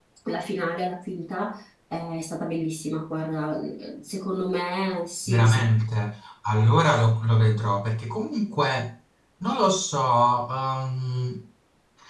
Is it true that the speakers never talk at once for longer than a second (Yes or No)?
Yes